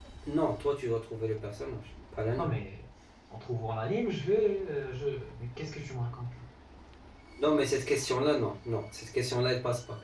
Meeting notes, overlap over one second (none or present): none